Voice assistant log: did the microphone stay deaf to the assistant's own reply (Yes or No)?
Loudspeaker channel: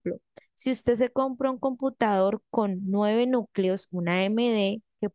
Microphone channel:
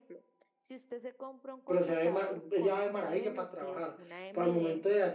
No